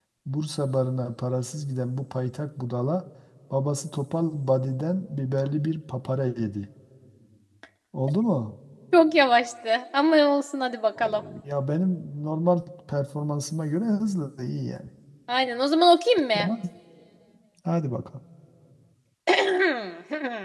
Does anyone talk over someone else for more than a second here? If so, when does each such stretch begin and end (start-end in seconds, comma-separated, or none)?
none